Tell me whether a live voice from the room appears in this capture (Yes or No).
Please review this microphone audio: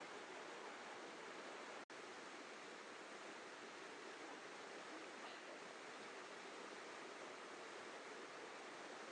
No